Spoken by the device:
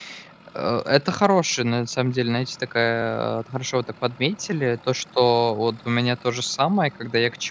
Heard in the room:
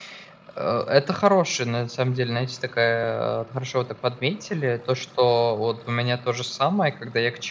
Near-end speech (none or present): none